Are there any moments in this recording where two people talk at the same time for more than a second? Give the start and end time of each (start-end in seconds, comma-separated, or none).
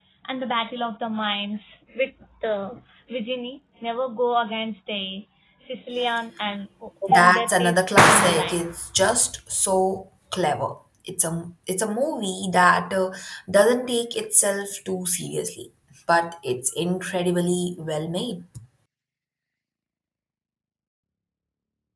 7.1-8.6